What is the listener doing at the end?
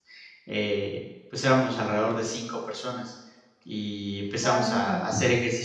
listening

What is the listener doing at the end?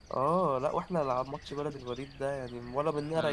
listening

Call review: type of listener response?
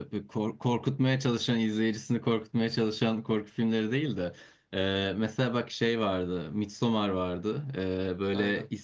listening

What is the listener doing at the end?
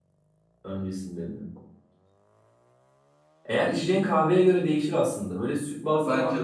listening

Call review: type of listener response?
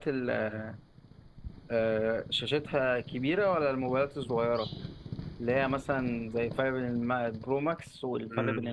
taking over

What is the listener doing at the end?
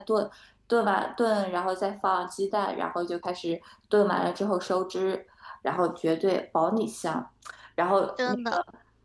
listening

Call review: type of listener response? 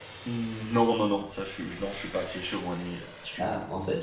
taking over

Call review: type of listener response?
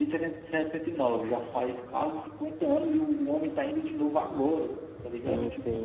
taking over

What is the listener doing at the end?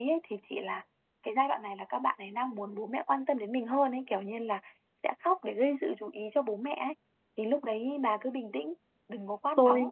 taking over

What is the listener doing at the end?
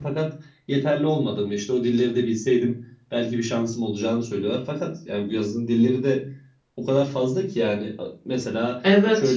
listening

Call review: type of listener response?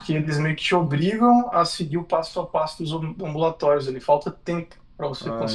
taking over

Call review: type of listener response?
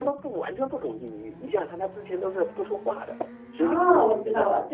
taking over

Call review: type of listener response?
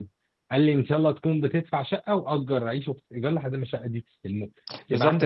taking over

